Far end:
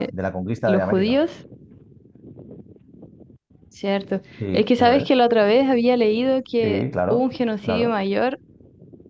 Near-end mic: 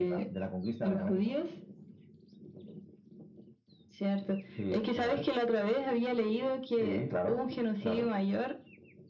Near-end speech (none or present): none